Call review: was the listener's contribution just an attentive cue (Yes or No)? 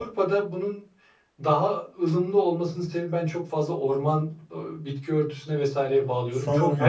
No